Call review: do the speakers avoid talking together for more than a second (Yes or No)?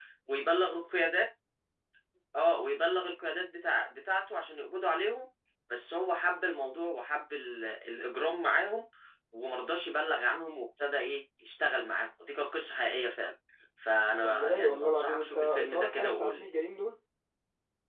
No